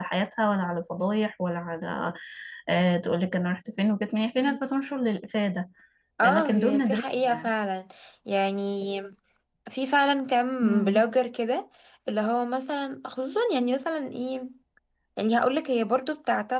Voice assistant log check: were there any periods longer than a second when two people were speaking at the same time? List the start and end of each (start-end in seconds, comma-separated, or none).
6.2-7.5